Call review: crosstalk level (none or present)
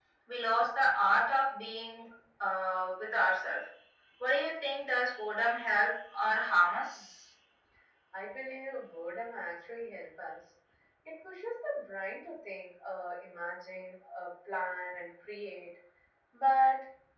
none